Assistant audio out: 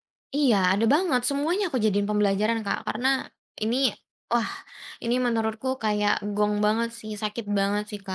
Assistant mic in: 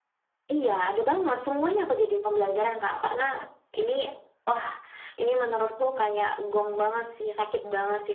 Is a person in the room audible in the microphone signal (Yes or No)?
No